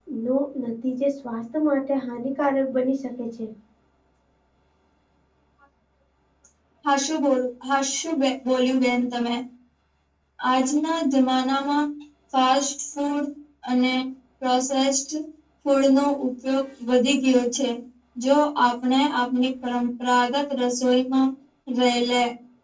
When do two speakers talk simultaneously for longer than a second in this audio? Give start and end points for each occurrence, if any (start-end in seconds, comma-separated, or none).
none